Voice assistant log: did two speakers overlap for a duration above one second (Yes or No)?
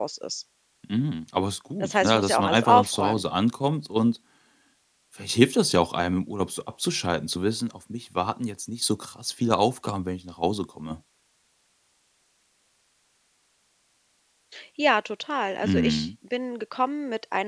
Yes